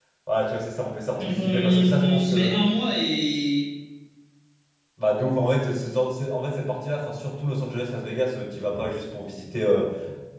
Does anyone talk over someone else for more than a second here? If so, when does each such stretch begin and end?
1.2-2.5

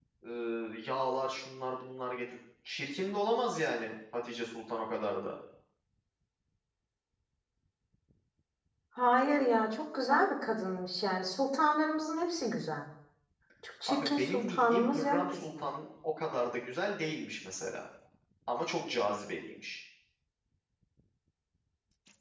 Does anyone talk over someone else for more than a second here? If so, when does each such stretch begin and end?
13.9-15.7

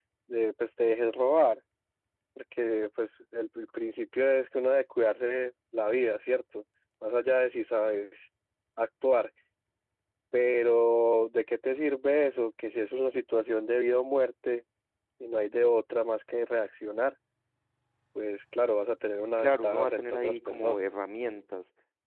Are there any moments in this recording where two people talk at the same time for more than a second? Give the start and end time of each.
19.4-20.8

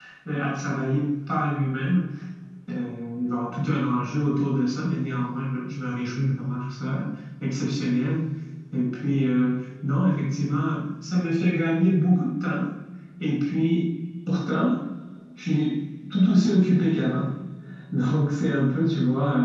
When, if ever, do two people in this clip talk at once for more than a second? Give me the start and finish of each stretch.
none

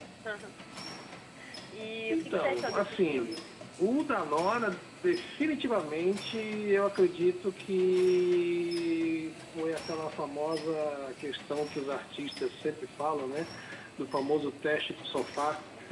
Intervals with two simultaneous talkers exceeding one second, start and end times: 2.1-3.4

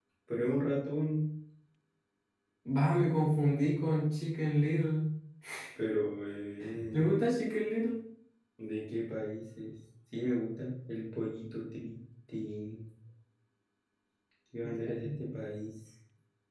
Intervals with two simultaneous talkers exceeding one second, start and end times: none

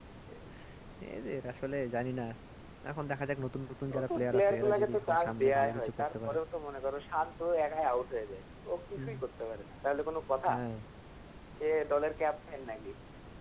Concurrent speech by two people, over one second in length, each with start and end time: 3.9-6.4

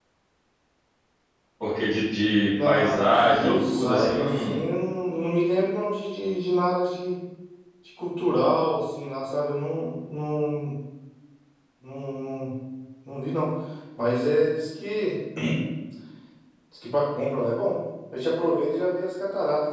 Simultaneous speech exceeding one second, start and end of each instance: 2.6-4.6

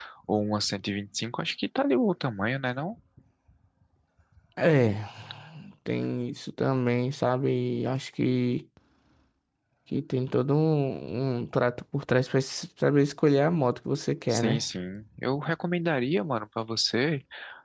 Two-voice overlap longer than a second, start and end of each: none

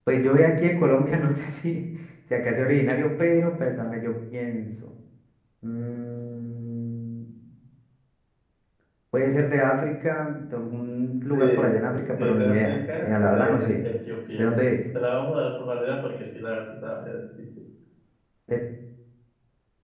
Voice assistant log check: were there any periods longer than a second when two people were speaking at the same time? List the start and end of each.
12.2-13.8

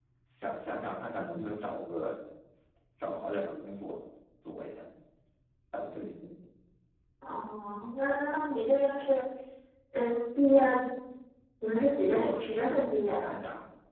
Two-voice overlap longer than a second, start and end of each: 12.1-13.3

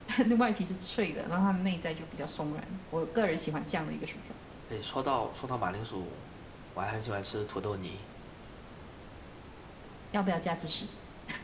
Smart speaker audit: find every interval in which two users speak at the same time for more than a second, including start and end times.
none

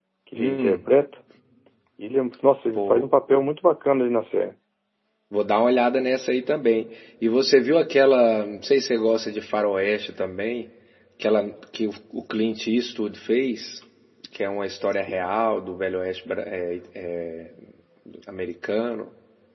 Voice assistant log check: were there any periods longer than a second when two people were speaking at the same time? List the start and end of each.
none

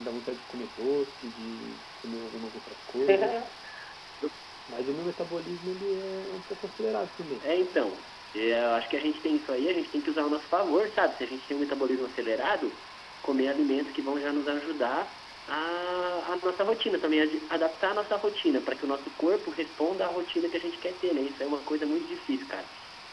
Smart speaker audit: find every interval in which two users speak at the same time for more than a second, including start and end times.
none

